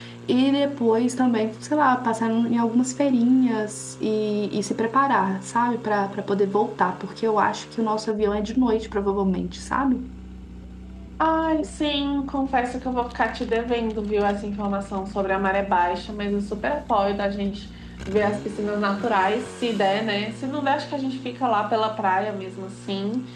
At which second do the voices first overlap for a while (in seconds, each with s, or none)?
none